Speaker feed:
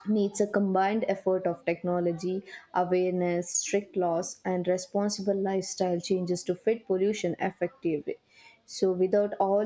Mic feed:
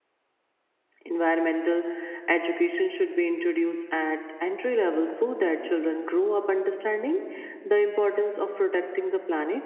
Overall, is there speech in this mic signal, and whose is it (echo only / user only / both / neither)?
user only